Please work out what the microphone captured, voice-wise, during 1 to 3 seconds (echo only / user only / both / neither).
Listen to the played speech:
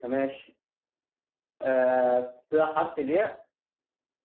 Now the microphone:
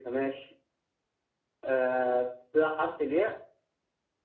echo only